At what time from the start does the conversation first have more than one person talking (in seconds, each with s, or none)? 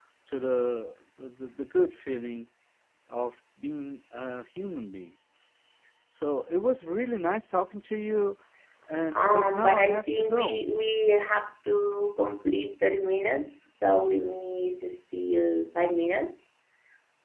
9.1 s